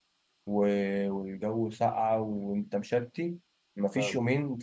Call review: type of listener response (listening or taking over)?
listening